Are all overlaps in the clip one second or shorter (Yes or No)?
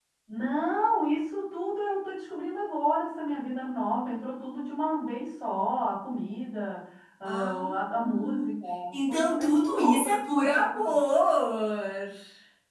No